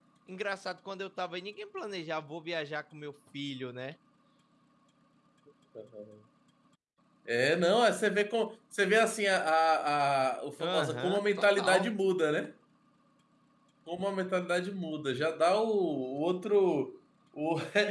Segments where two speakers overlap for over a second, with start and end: 10.7-11.9

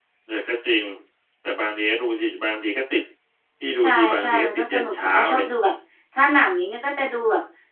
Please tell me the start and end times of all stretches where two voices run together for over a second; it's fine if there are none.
3.8-5.5

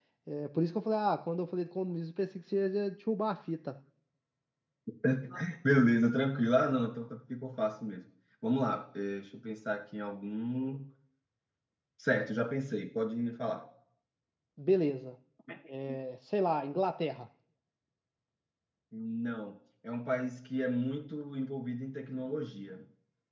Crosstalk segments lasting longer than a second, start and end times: none

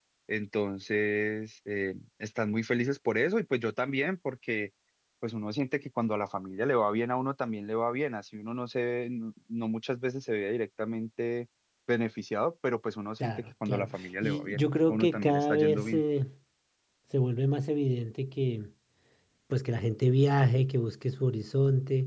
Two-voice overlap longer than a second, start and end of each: 13.2-16.0

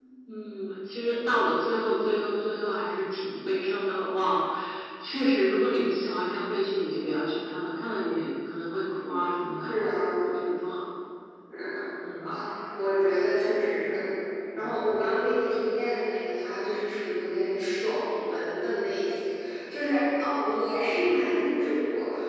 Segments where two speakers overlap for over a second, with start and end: none

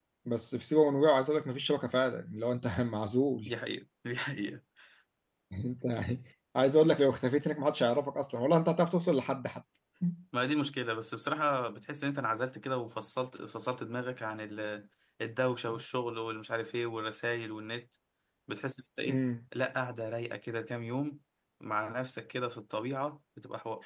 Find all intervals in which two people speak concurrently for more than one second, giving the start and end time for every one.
none

